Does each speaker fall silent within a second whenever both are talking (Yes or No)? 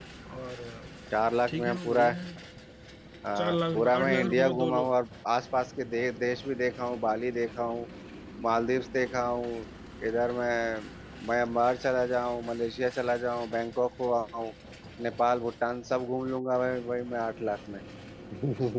No